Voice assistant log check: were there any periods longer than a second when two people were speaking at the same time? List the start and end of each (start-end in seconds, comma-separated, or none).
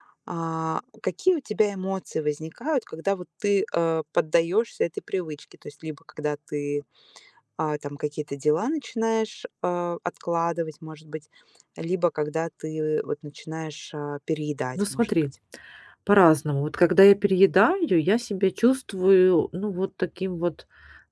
none